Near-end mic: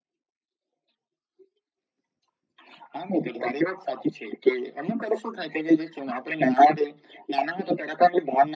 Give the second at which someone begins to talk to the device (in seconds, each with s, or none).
none